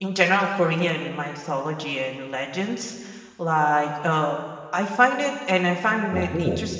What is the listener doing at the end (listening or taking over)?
listening